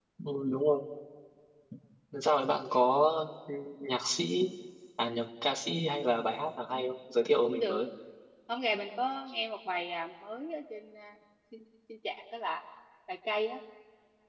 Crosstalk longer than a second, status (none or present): none